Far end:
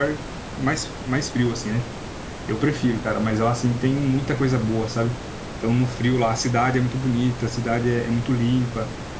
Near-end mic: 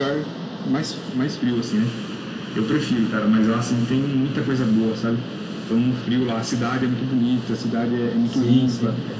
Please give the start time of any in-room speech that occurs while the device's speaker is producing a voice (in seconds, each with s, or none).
8.2 s